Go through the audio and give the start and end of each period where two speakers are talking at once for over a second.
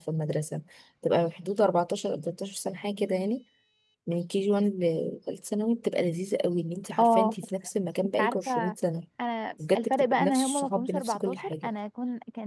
9.8-11.7

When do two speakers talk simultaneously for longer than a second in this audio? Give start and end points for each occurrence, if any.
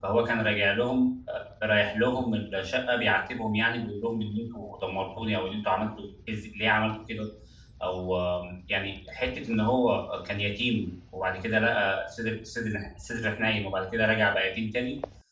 none

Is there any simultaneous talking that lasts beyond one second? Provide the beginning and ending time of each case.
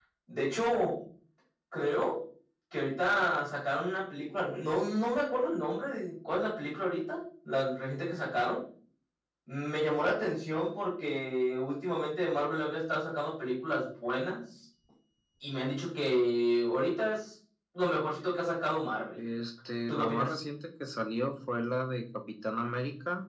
none

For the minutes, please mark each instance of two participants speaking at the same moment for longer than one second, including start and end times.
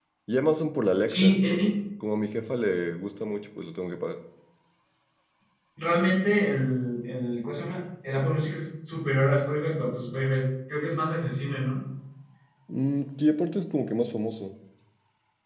none

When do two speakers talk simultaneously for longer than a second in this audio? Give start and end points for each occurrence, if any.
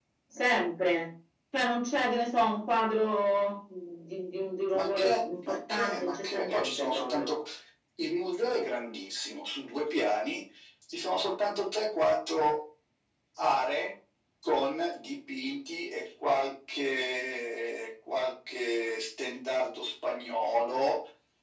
4.7-7.3

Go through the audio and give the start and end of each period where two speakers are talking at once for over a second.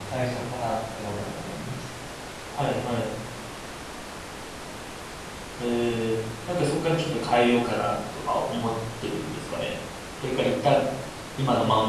none

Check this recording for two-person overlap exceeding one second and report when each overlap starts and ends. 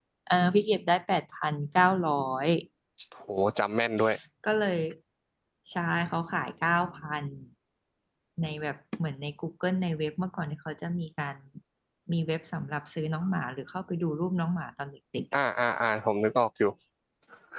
none

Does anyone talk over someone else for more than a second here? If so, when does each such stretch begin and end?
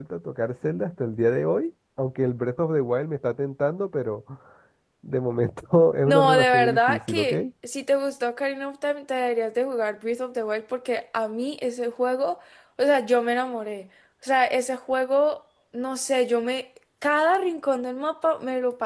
6.1-7.3

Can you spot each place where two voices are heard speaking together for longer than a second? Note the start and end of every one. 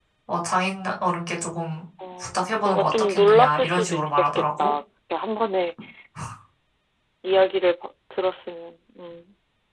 2.2-4.7

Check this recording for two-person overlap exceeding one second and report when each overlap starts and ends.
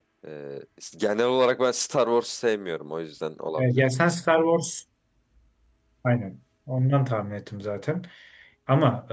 none

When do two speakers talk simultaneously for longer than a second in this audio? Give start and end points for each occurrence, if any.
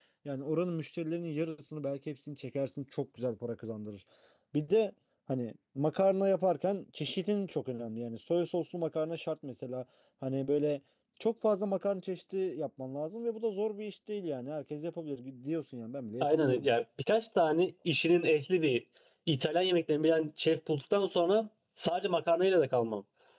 none

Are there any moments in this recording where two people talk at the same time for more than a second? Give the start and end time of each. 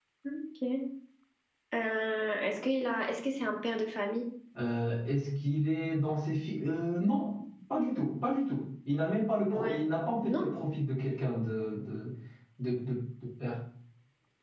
none

